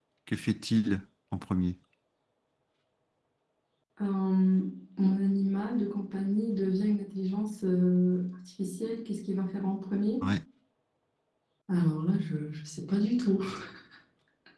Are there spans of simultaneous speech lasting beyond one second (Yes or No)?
No